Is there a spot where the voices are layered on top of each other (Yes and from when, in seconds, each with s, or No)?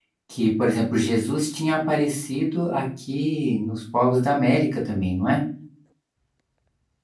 No